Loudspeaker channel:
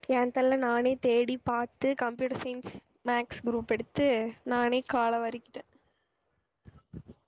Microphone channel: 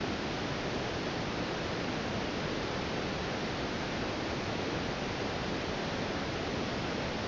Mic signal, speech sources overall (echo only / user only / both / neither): neither